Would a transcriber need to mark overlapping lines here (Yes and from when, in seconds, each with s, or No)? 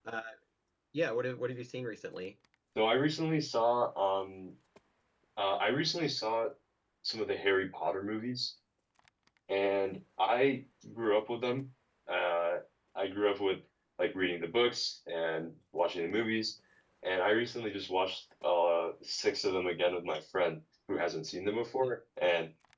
No